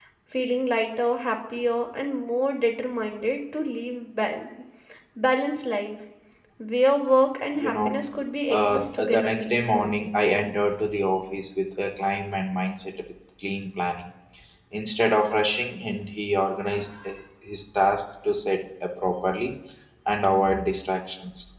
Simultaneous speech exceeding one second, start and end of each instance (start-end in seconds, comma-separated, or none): 8.5-9.9